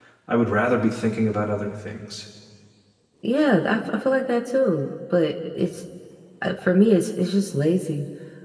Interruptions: none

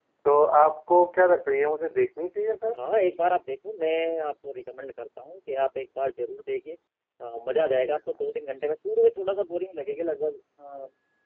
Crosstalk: none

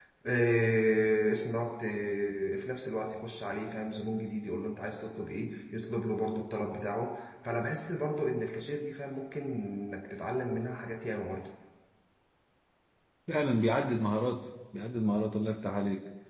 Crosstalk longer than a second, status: none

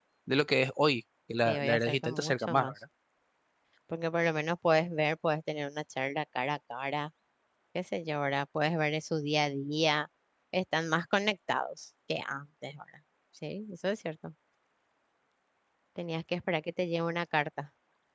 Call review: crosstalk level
present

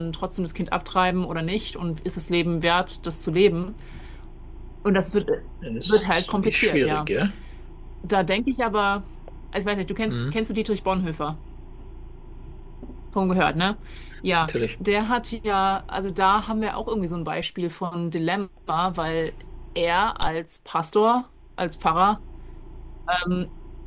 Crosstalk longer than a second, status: present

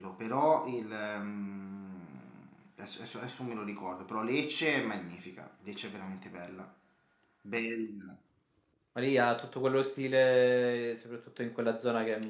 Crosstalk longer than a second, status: none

